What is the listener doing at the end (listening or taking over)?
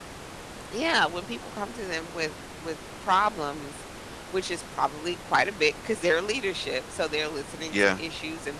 listening